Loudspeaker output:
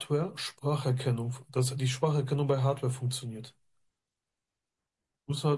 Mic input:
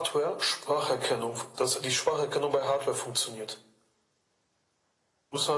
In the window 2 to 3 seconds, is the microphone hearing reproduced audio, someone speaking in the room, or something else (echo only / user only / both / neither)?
echo only